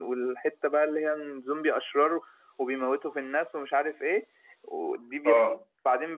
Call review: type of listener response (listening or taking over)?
listening